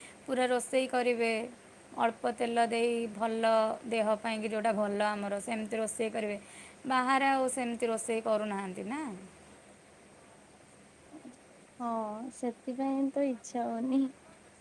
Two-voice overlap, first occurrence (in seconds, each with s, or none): none